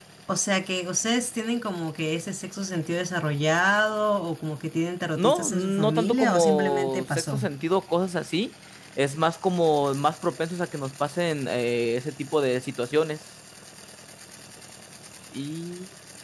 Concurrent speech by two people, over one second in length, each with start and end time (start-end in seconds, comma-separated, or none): 5.2-7.4